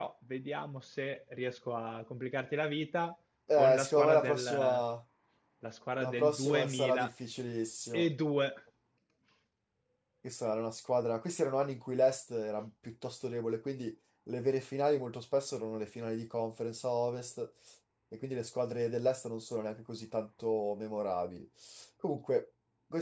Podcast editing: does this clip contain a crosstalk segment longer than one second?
Yes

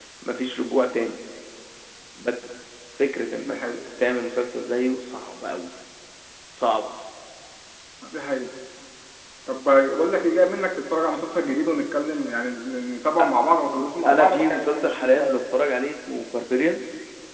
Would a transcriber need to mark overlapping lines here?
Yes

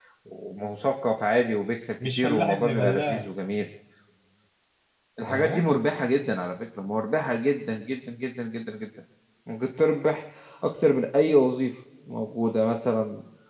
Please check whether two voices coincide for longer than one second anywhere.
Yes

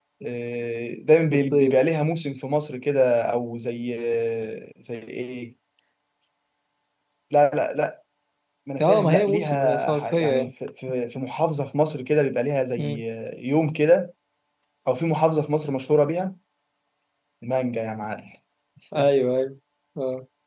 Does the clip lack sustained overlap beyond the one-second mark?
No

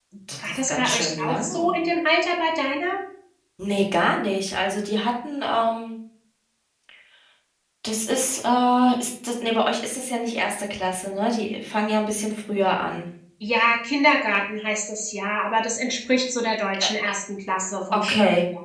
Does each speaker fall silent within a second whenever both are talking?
No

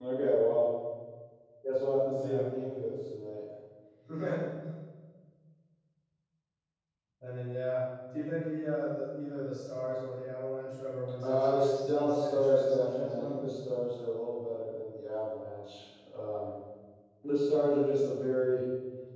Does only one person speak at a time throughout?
No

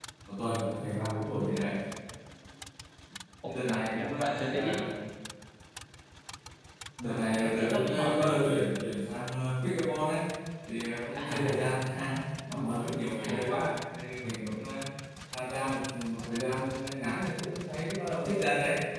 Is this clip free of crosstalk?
No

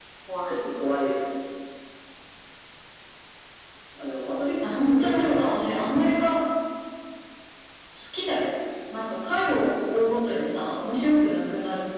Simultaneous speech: Yes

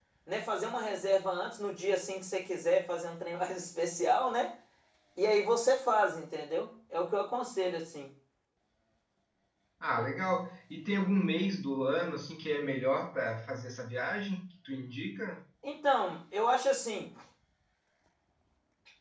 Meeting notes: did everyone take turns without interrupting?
Yes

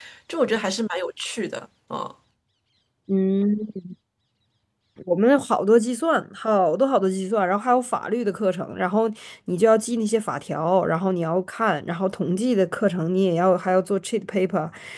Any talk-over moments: No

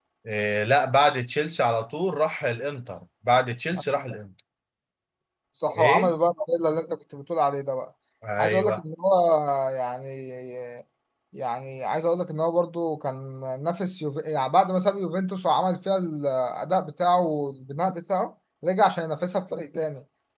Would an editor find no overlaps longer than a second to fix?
Yes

